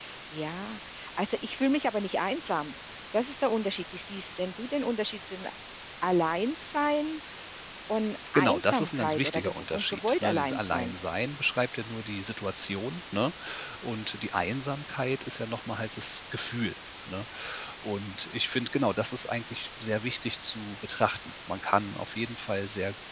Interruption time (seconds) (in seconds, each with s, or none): 8.3 s